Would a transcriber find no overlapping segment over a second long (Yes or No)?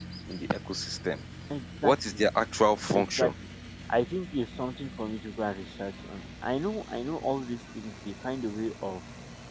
Yes